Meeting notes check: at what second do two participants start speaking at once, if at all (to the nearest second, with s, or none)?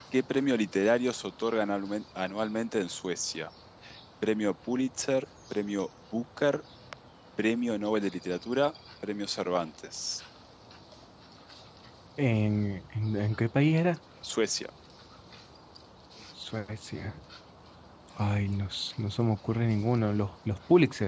none